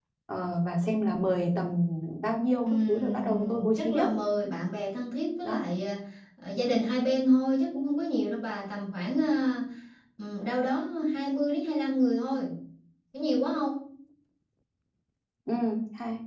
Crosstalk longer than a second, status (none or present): present